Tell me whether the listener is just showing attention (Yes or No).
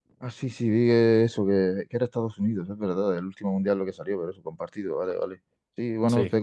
Yes